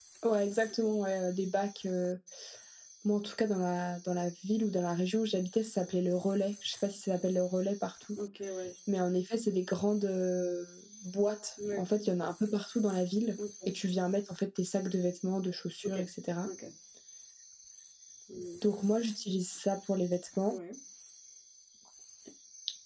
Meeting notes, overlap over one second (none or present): none